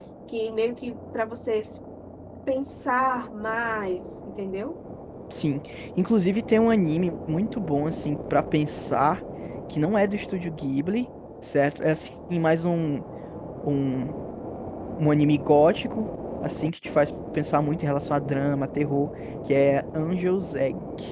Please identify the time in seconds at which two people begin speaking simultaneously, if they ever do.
none

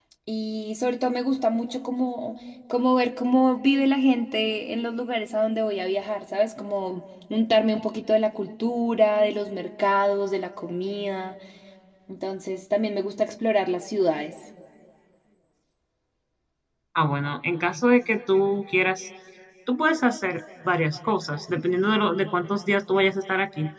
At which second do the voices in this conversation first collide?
none

